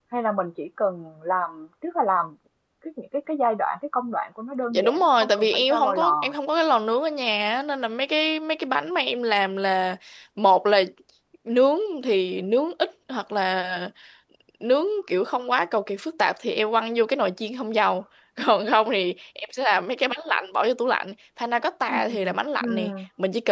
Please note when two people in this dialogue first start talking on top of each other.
4.7 s

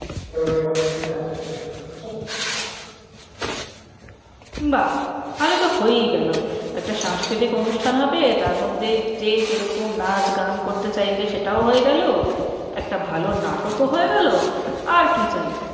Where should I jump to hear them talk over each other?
none

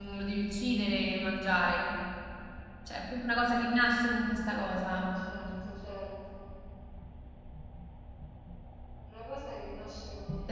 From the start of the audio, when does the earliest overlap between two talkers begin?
none

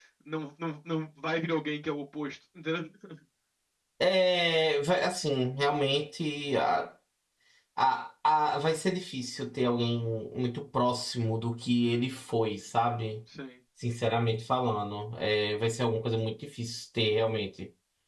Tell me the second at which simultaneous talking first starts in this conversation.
none

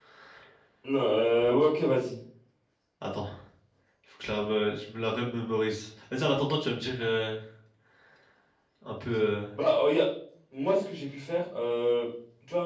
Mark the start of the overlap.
none

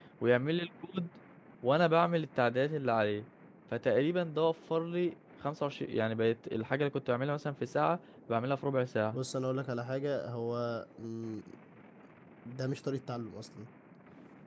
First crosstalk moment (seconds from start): none

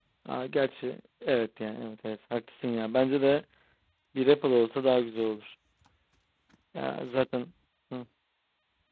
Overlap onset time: none

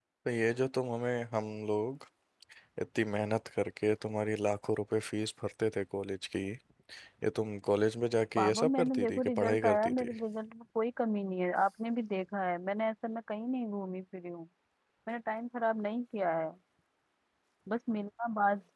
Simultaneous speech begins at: 8.4 s

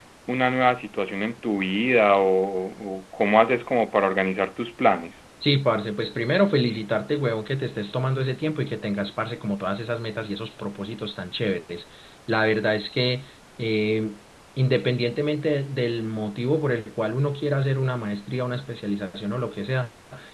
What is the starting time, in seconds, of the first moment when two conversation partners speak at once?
none

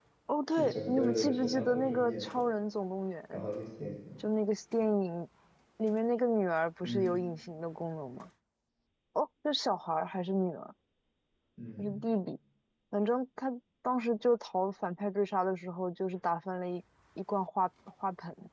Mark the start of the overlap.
0.5 s

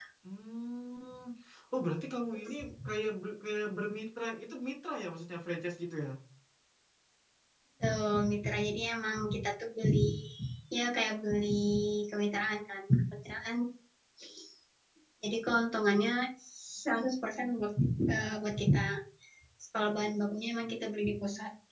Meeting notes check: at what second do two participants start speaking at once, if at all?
none

